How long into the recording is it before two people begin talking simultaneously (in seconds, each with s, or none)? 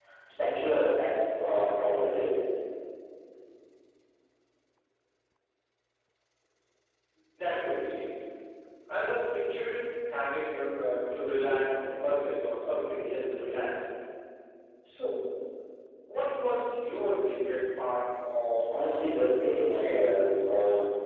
18.7 s